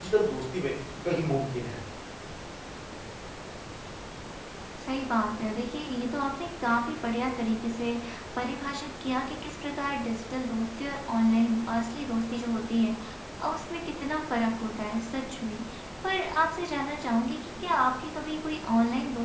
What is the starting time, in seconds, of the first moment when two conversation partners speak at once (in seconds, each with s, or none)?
none